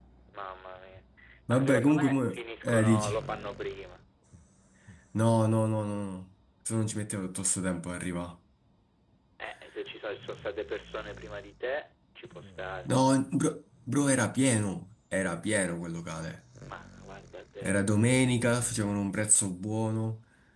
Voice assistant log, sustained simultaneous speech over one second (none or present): present